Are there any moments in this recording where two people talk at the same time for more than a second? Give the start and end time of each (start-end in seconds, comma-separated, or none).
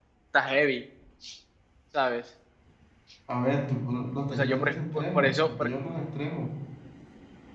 4.3-5.7